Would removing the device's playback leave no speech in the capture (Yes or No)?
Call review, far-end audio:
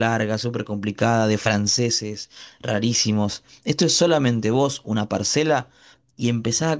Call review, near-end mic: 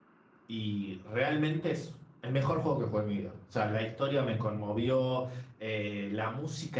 No